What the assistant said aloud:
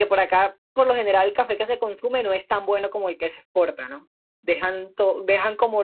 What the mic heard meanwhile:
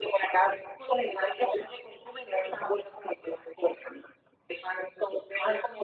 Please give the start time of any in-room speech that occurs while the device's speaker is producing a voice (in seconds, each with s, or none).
none